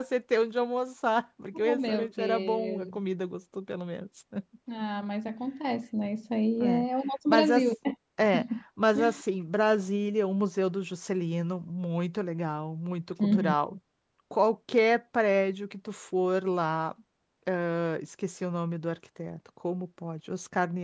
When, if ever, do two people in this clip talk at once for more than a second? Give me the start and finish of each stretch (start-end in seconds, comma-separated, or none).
1.6-2.9